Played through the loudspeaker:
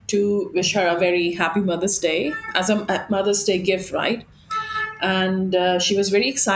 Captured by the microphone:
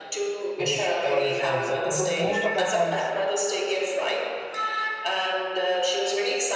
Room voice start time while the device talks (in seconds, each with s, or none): 0.5 s